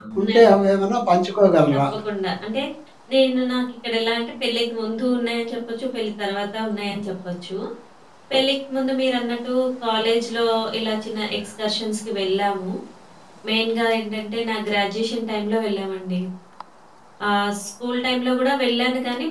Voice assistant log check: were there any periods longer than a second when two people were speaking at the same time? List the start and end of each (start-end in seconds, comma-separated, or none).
none